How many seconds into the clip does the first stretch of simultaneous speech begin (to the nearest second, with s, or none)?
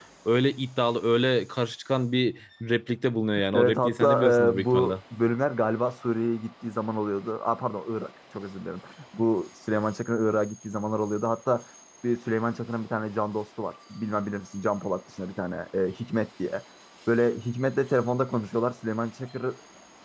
4 s